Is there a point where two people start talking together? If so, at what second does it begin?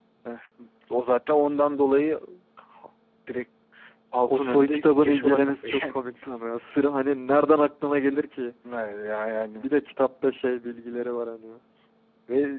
4.3 s

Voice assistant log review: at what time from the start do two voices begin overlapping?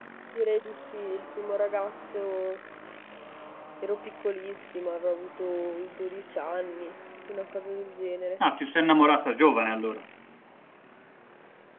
none

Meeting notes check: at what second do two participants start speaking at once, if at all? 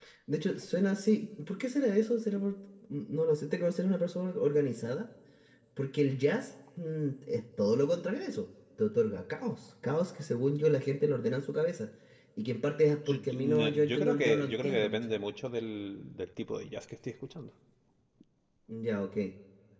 13.1 s

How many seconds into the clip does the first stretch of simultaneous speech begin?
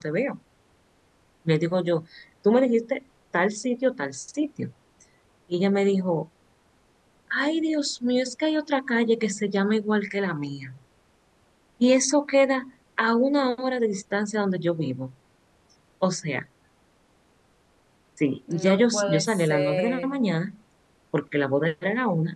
18.5 s

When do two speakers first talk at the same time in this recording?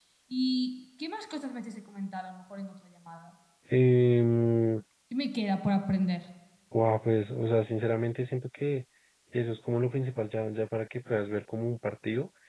none

